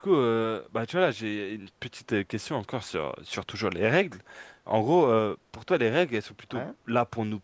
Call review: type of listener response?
listening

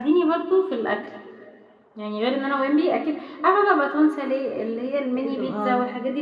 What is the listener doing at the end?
listening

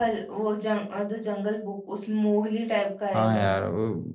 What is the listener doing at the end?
taking over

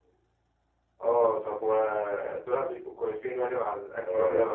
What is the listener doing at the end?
taking over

